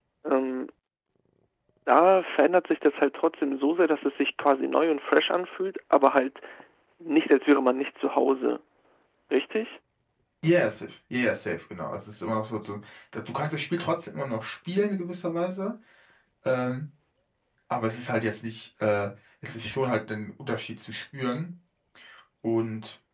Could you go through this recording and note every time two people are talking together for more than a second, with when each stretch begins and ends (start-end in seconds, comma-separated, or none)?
none